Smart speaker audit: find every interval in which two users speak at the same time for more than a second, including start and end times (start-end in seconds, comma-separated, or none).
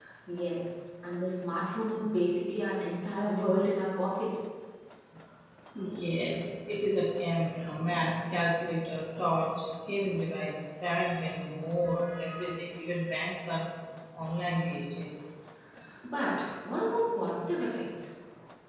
none